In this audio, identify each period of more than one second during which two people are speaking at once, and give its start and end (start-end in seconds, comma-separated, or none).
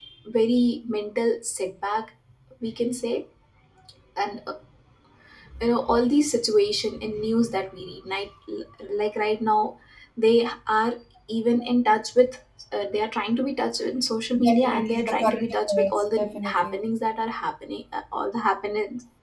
14.4-16.8